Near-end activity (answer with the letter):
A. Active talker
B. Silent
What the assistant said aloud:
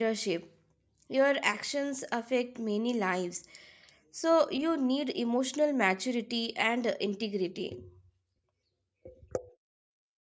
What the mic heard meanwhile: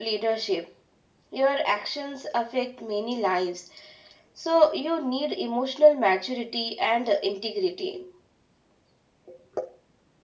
B